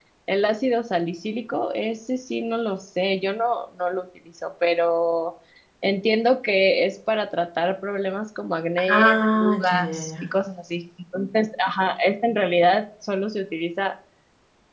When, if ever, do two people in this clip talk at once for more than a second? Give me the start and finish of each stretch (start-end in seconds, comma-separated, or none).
8.9-10.2